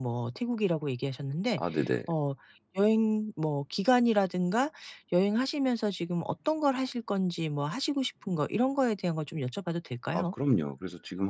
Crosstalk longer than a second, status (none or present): none